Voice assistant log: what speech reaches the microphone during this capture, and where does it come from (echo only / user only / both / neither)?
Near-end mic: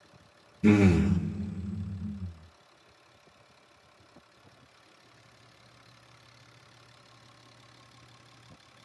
user only